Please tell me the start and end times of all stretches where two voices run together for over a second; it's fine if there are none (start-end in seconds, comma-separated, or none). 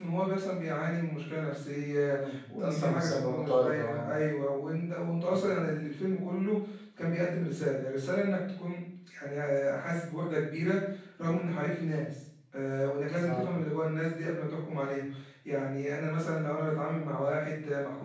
2.1-4.1